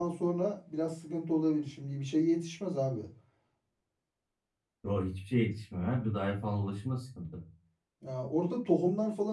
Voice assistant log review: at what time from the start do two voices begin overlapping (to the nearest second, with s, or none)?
none